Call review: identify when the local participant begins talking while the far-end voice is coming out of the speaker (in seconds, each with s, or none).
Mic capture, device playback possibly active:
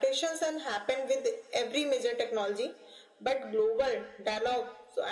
none